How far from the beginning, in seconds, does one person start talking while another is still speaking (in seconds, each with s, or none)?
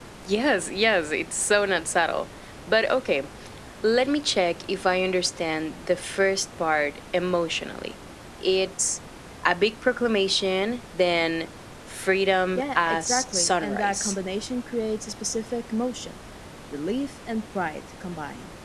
12.6 s